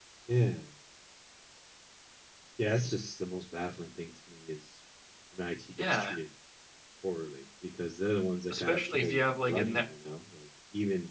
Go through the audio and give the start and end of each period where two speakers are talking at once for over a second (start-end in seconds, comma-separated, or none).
8.5-9.8